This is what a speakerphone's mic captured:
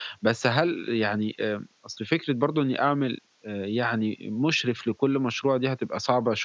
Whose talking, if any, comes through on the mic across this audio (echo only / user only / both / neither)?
user only